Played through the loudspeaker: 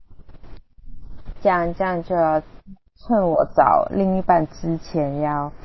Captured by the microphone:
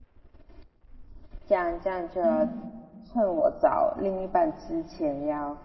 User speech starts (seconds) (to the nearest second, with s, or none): 2 s